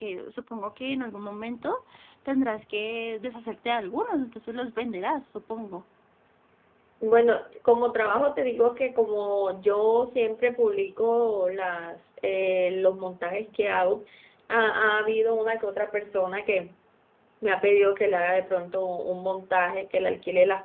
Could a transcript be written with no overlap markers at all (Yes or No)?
Yes